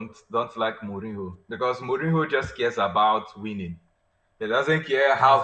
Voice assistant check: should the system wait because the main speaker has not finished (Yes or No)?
Yes